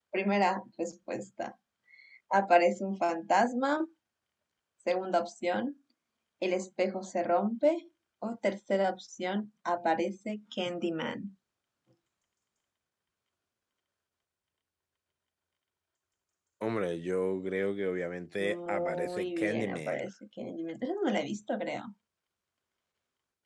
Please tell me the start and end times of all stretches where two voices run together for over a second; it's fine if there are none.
18.4-20.1

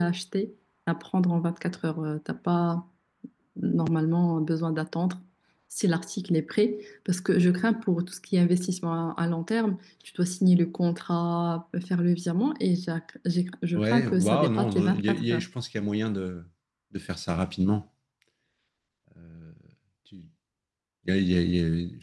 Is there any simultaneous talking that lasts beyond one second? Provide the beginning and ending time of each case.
13.8-15.5

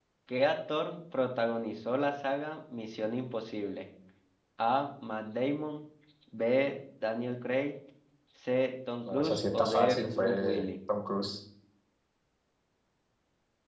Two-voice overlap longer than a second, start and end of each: 9.1-10.7

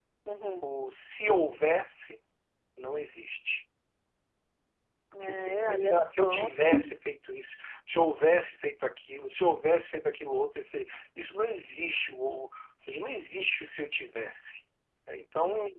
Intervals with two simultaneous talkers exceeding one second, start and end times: 5.2-6.5

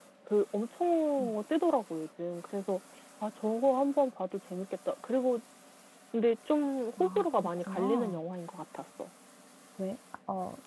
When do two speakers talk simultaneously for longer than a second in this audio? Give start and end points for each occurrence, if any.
7.0-8.2

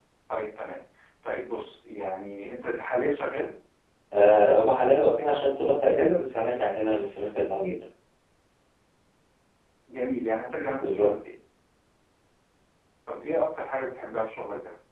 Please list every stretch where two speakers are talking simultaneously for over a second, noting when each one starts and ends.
none

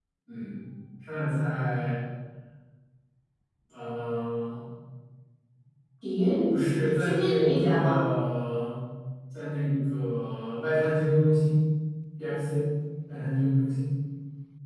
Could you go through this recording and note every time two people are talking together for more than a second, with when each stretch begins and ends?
6.9-8.1

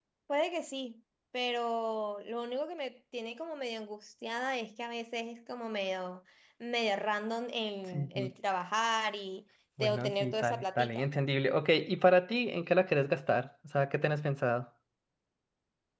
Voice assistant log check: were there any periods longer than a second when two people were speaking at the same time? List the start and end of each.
9.8-11.0

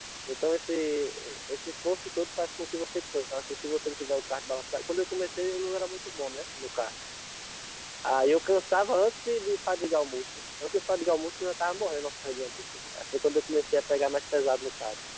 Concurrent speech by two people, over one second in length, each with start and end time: none

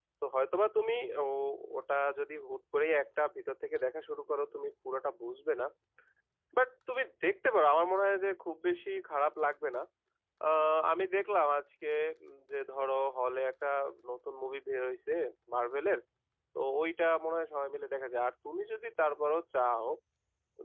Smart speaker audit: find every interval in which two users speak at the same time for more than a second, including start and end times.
none

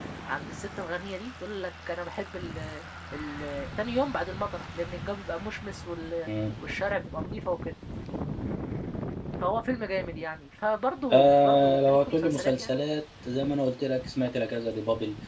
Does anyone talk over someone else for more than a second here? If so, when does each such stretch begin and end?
11.1-12.8

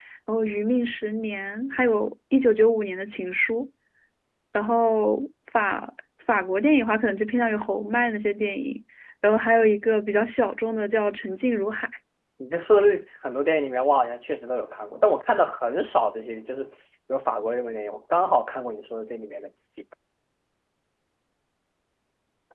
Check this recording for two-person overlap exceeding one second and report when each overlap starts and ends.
none

